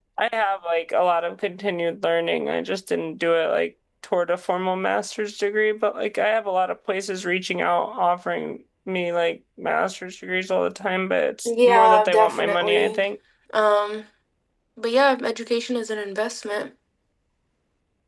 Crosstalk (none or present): present